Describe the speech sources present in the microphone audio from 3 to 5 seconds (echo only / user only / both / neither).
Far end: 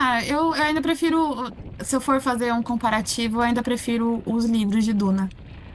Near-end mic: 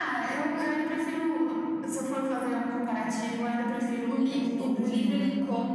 both